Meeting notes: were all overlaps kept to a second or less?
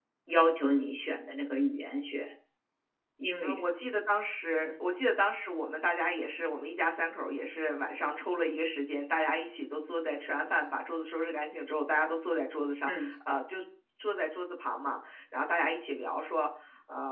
Yes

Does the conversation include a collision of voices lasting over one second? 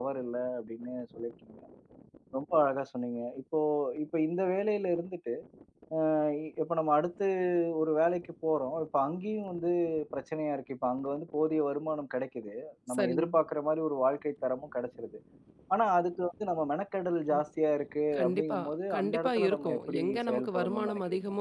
Yes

